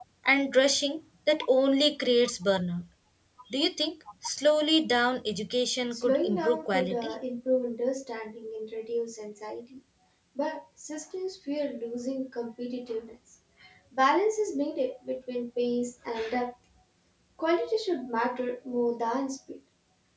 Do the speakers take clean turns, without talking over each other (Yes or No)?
No